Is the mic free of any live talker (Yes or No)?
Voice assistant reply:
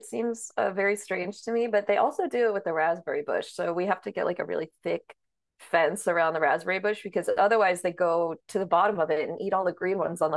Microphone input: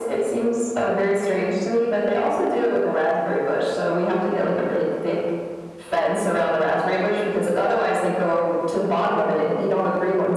Yes